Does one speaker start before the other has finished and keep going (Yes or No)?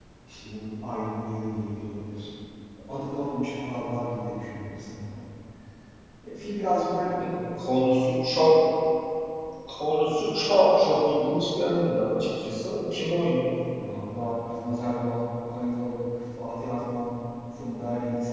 No